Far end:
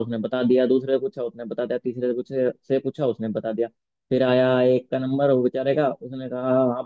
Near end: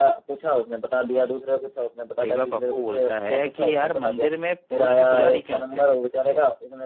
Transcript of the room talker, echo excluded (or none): एक बार पप्पू बोलता है कि यार मंदिर में पुरुष ही पुजारी क्यों होते हैं